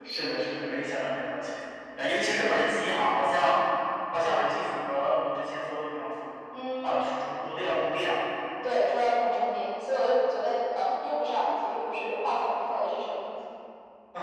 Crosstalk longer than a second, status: none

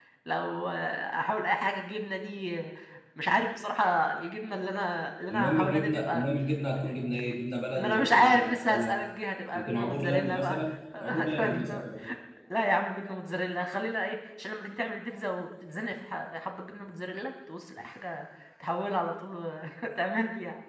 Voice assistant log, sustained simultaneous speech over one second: present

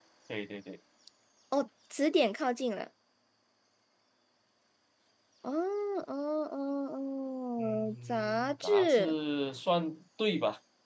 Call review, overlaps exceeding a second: present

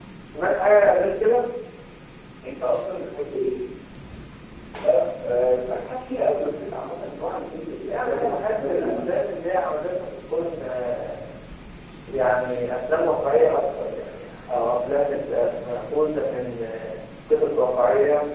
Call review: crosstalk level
present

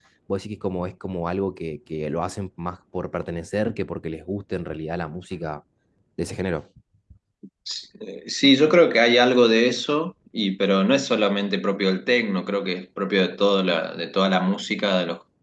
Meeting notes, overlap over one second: none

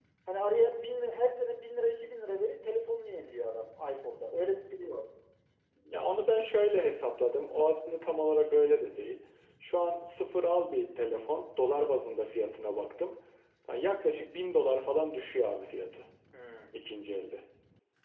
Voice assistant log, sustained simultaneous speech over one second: none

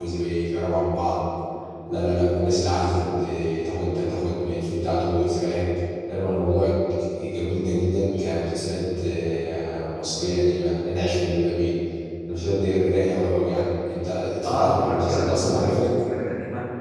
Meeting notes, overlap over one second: present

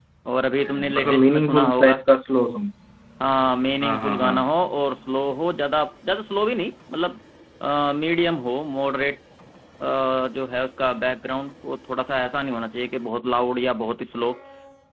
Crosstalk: present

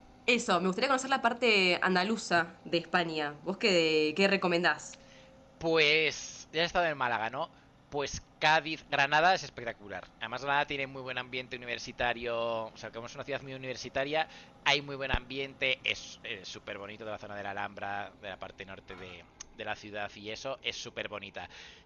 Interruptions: none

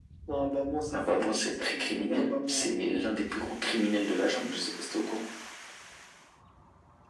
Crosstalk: present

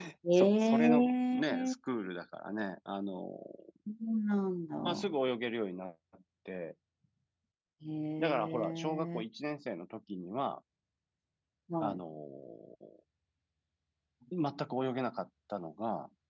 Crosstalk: present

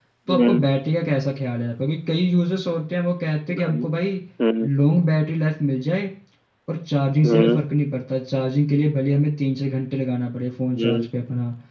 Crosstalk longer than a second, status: none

